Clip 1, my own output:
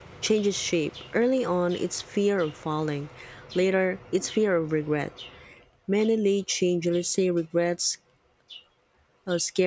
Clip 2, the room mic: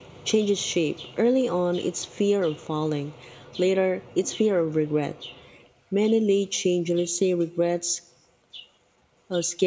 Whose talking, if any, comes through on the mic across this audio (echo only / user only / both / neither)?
echo only